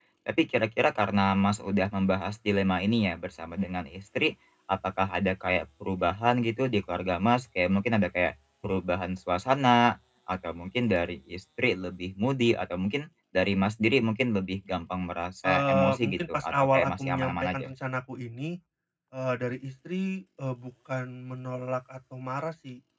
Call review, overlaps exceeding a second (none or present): present